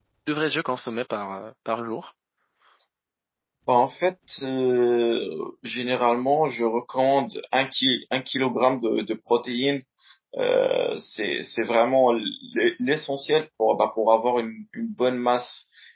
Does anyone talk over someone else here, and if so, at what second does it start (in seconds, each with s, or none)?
none